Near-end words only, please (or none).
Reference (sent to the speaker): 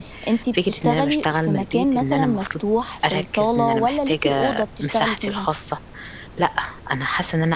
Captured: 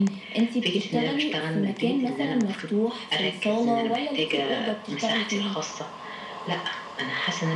none